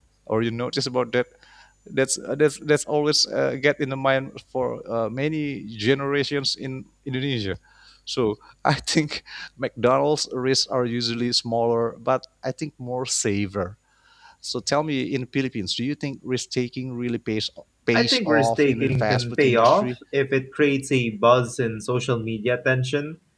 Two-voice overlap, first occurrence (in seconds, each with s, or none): 17.9 s